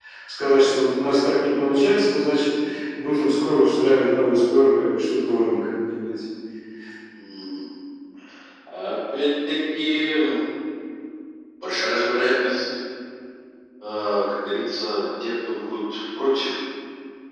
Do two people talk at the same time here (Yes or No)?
No